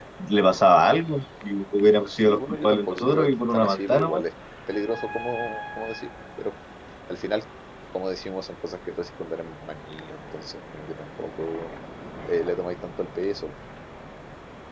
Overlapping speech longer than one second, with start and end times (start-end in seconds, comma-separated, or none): 2.2-4.2